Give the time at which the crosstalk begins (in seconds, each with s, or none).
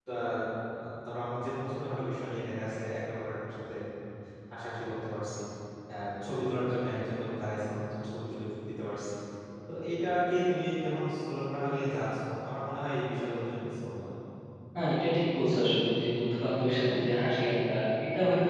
none